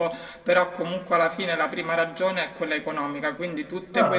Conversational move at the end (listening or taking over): listening